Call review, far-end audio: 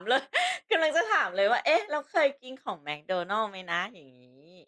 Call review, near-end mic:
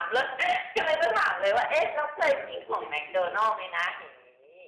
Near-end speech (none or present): present